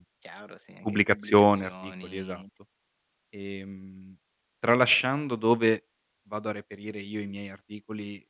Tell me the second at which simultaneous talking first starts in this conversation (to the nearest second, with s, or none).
1 s